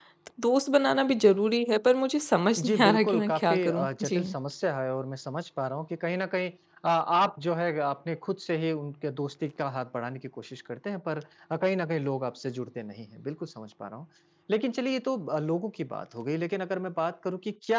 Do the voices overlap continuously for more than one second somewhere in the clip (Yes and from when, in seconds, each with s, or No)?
Yes, from 2.6 s